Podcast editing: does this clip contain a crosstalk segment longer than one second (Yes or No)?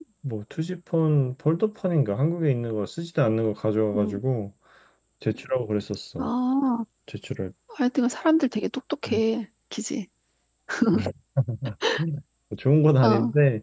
No